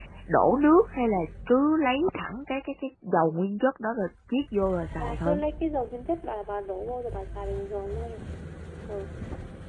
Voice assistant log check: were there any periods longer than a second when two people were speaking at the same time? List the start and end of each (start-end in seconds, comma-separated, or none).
none